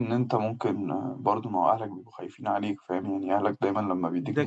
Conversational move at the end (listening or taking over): taking over